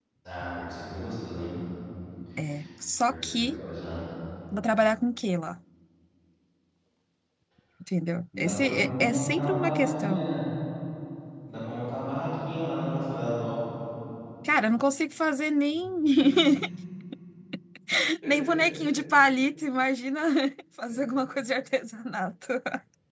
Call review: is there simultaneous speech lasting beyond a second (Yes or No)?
Yes